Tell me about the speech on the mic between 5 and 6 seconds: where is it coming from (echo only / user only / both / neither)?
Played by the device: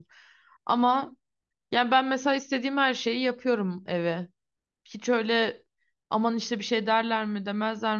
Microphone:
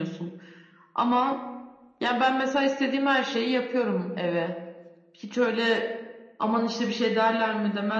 echo only